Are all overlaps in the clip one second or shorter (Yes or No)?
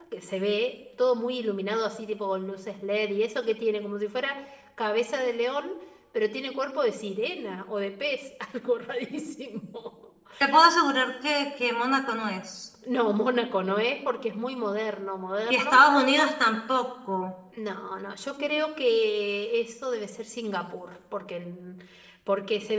Yes